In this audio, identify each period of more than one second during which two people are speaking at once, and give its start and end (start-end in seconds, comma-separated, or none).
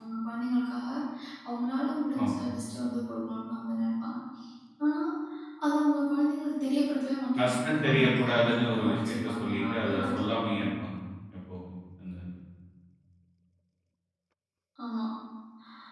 7.4-10.6